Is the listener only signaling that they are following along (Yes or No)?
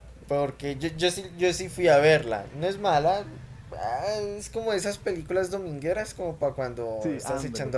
No